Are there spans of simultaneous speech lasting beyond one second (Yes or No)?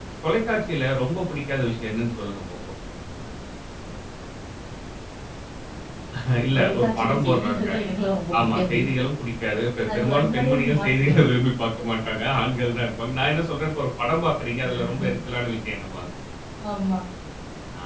Yes